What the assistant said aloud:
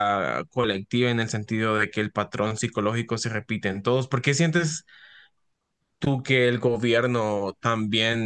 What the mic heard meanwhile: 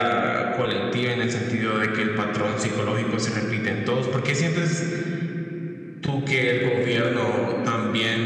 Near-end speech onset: none

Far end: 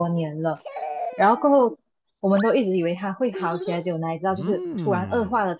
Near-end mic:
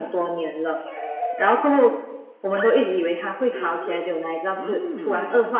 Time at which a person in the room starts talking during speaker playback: none

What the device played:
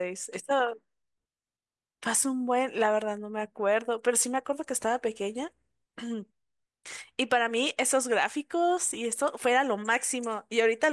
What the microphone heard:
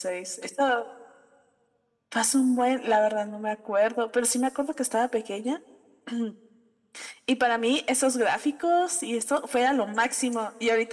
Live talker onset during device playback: none

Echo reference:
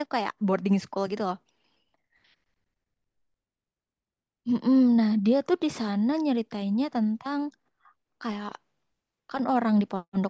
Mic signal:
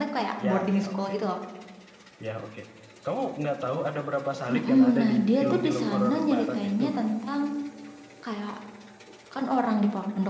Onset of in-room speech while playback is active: 0.4 s

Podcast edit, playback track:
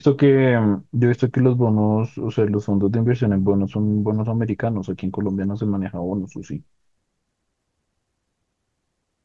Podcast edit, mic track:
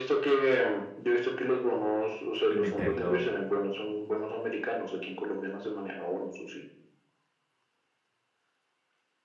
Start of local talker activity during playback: 2.5 s

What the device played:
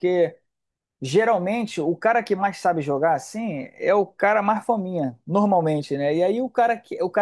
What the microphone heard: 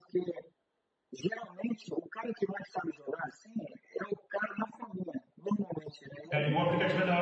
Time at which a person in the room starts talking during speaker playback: 6.3 s

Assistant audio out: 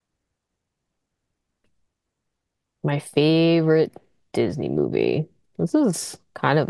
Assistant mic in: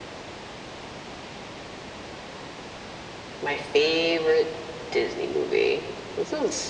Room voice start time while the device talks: none

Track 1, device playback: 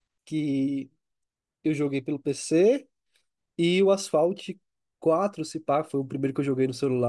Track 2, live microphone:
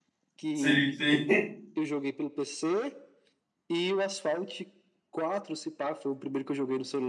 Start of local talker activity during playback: 0.5 s

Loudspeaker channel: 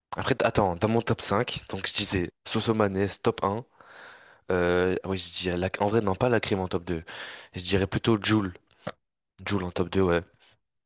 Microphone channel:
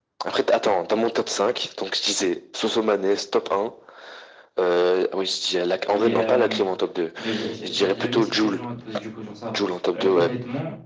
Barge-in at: 5.9 s

